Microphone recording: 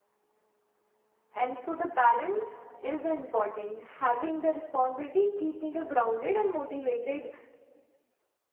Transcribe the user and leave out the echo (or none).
And so the balance is the important. Having the responsibility keep me the grounded and motivated